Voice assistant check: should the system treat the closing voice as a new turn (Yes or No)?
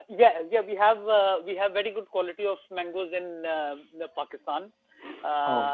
No